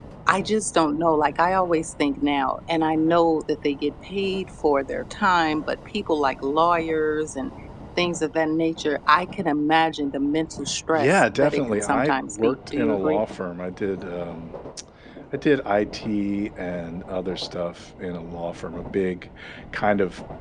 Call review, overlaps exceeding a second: present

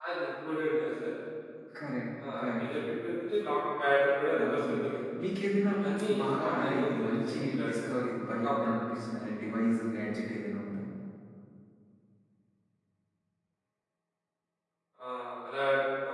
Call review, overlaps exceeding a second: present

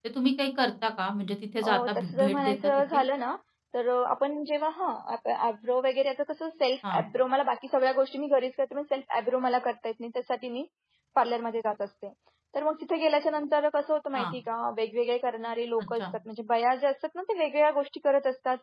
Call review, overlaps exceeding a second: present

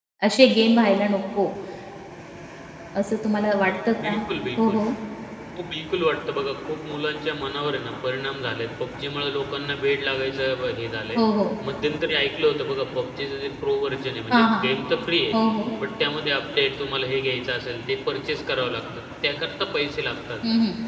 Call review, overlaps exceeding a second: none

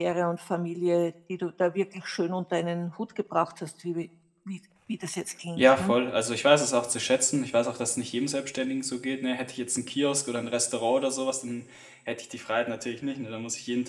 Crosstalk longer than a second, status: none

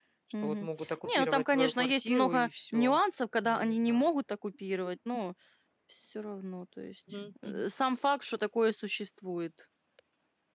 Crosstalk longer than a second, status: present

